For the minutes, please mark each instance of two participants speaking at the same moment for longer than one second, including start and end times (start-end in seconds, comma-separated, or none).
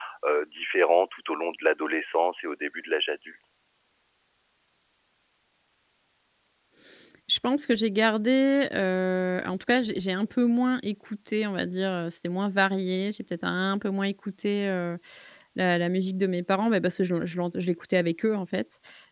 none